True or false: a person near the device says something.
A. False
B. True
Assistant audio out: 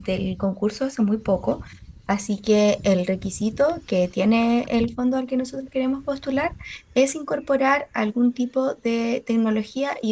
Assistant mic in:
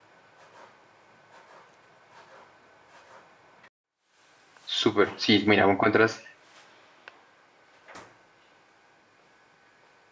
B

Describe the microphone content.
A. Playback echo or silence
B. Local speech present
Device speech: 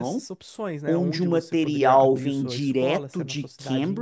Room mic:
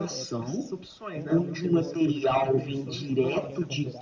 B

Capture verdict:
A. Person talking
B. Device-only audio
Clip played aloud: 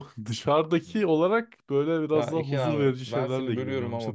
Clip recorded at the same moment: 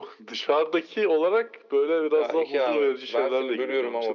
B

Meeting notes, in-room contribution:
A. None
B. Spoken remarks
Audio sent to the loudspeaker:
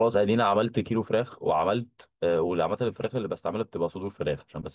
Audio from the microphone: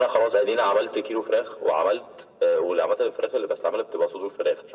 A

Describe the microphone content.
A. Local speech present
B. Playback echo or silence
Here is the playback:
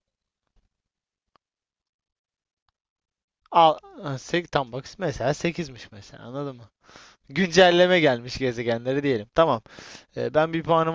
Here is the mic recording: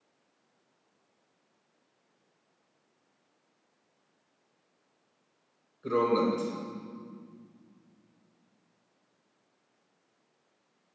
A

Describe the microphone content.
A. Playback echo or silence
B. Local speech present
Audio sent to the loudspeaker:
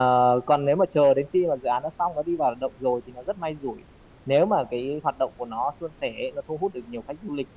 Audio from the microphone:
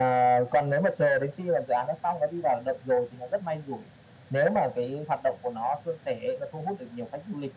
A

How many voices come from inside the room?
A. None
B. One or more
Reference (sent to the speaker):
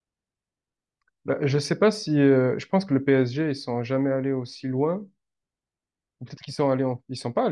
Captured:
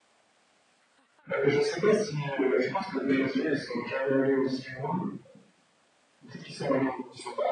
A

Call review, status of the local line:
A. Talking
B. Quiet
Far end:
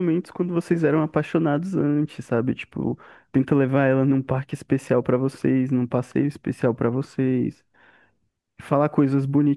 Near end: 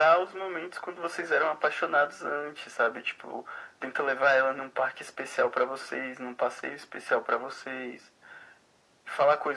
B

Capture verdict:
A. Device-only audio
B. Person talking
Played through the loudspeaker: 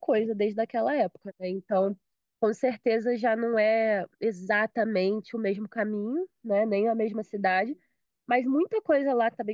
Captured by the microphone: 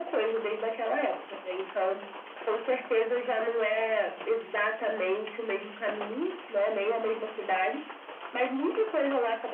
A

